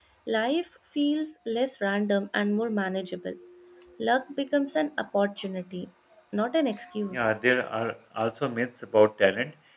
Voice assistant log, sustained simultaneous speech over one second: none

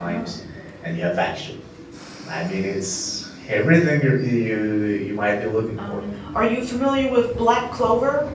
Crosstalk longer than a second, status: none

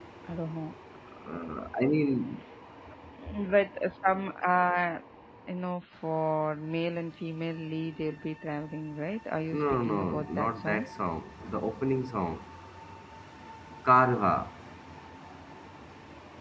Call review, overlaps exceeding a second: present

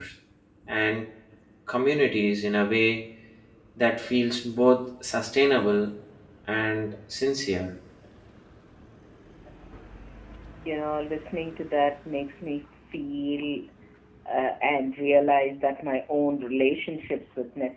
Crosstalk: none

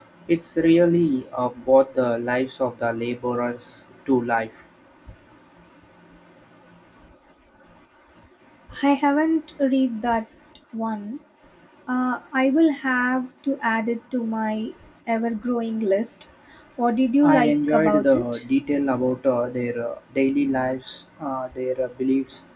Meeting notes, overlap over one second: present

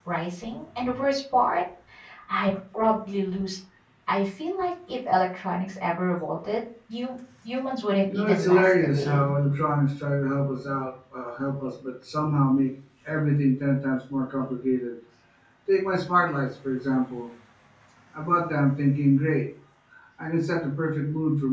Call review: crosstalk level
present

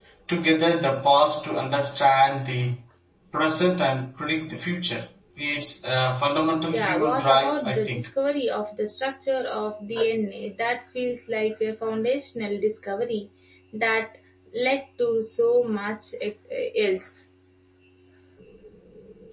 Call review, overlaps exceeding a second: present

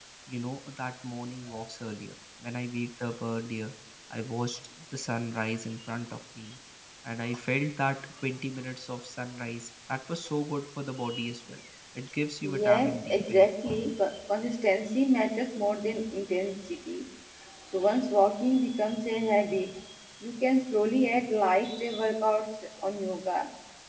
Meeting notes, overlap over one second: present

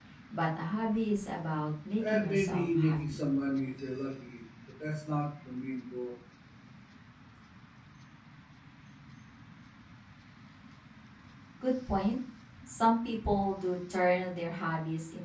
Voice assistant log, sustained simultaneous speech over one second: present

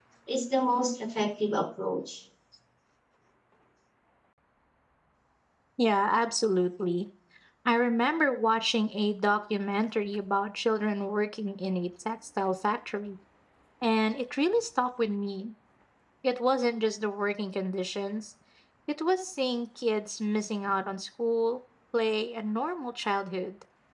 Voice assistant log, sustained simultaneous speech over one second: none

